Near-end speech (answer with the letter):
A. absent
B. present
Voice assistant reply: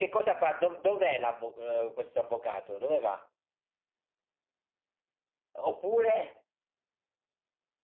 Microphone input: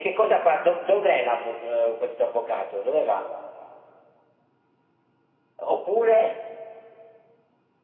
A